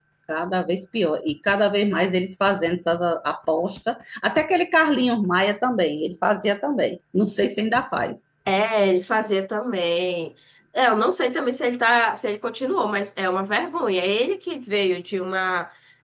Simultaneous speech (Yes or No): No